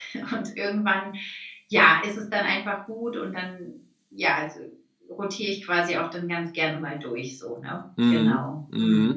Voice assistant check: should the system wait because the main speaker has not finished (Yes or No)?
No